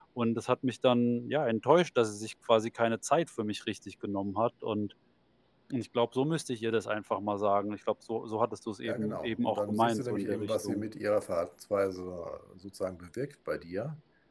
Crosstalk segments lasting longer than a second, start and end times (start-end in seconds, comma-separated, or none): 8.8-10.8